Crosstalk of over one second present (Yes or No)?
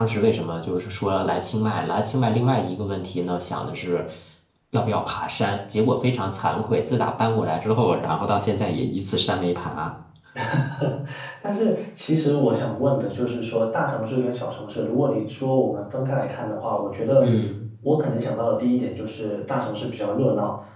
No